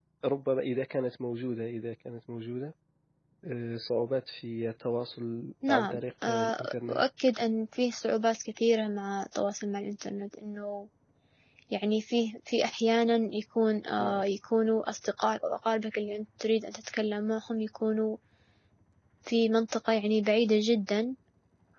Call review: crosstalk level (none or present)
present